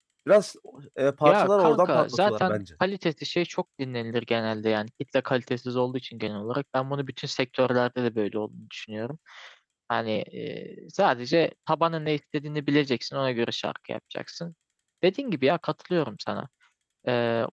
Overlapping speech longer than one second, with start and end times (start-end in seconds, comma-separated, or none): 1.2-2.6